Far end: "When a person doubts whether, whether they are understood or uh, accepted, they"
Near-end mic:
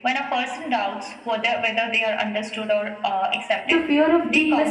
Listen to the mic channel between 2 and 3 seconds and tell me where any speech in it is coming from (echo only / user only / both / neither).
echo only